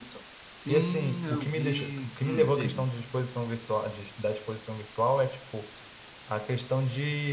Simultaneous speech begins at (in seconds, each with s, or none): 0.7 s